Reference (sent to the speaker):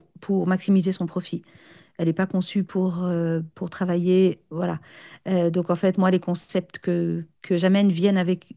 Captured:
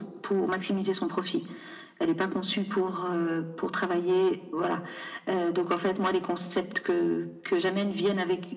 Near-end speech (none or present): none